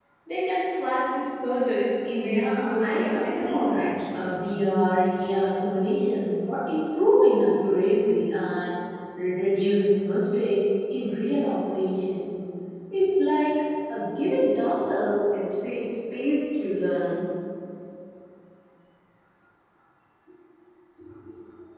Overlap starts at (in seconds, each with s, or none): 2.2 s